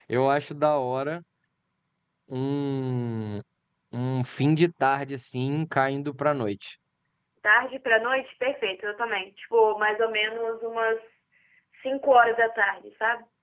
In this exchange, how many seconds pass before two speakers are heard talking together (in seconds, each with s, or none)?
none